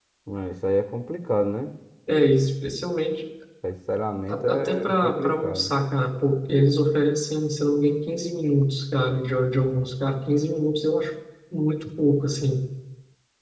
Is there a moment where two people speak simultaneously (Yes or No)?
Yes